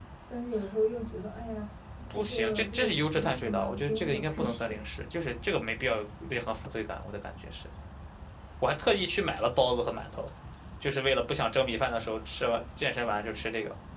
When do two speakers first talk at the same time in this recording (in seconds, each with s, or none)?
2.1 s